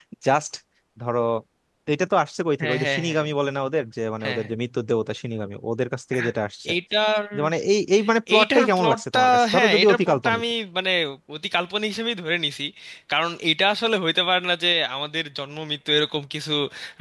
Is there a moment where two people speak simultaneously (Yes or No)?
Yes